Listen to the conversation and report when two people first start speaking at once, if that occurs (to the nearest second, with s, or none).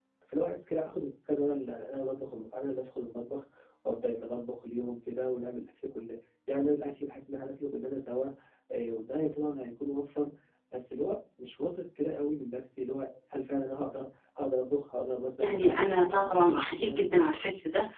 15 s